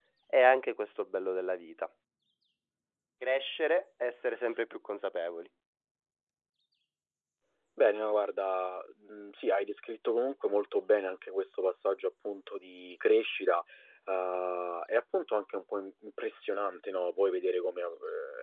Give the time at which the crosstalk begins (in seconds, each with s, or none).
none